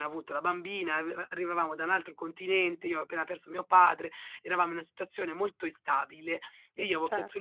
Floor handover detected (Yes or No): No